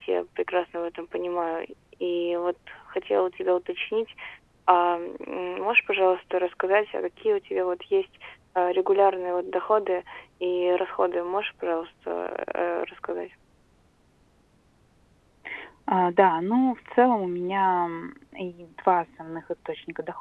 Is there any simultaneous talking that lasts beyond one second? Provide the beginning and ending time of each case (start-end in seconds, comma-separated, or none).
none